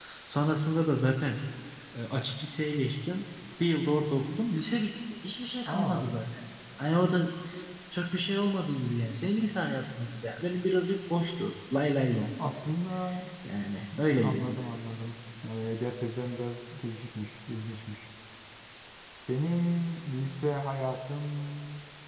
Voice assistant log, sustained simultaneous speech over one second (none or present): none